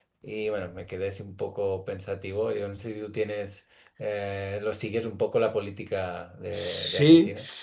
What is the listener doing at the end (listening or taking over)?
taking over